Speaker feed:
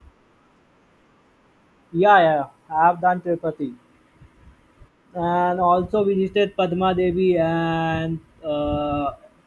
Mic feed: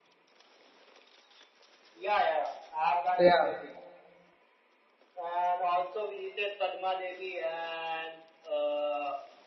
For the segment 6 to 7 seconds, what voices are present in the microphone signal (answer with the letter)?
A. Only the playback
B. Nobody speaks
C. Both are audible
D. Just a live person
A